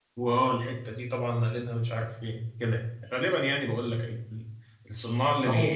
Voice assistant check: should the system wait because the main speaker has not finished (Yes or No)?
No